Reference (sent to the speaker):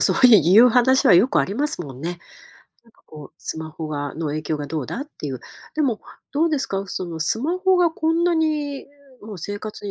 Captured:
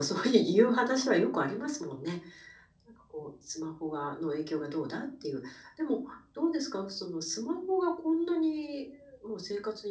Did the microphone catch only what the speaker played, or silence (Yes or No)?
Yes